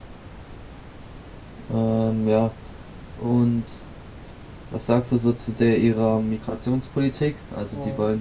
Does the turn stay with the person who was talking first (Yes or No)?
Yes